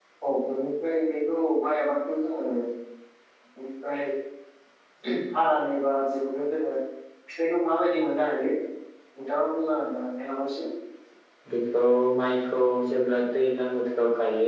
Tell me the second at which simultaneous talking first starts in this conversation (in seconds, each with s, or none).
none